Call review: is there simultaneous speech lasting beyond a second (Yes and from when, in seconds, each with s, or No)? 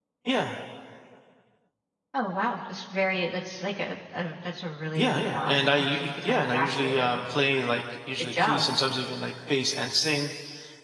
Yes, from 5.0 s